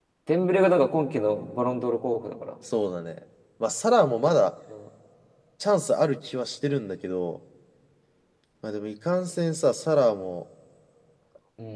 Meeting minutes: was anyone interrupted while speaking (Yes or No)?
No